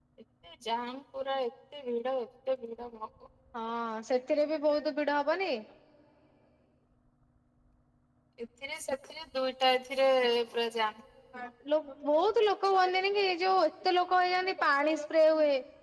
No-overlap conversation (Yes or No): Yes